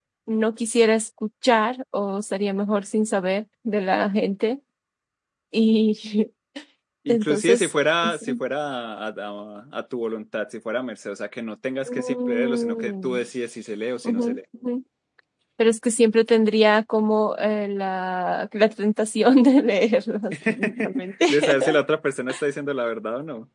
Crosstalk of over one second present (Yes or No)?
Yes